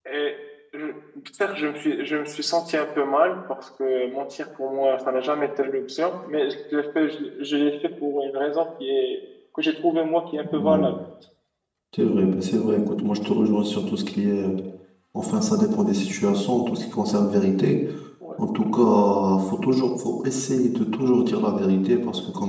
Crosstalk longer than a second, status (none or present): none